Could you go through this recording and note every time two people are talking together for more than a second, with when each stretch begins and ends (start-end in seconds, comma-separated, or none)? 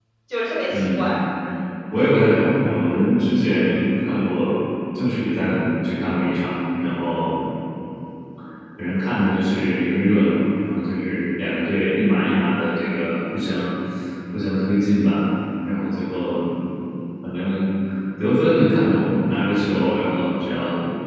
none